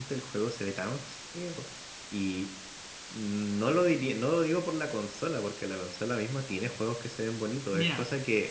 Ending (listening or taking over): taking over